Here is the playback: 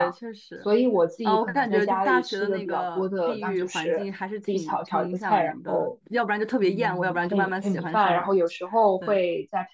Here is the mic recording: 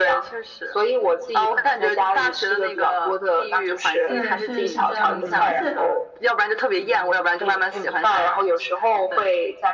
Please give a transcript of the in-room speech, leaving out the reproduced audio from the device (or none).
对，是是这样子的，而且